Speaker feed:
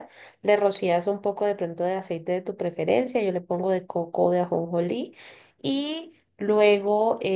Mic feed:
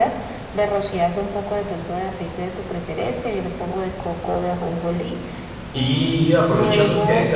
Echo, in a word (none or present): present